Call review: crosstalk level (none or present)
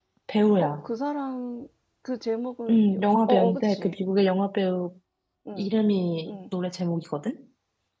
present